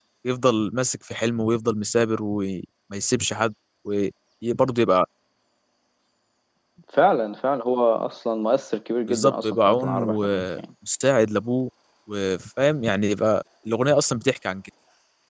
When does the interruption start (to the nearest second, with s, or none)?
9 s